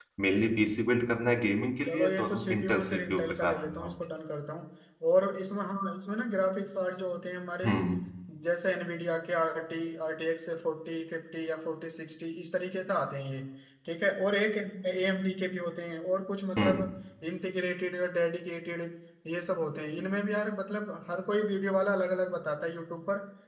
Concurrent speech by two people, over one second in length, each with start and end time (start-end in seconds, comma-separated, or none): 1.8-4.0